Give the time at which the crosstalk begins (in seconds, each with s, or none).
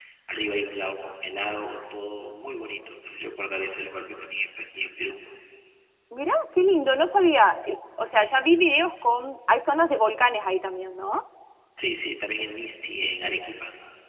none